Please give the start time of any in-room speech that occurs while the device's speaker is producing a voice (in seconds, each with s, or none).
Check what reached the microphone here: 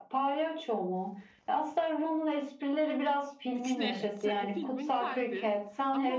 3.5 s